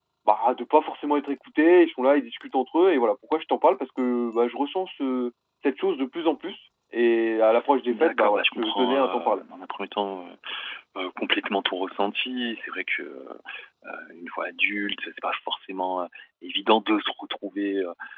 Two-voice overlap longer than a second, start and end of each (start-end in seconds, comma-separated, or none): 7.9-9.4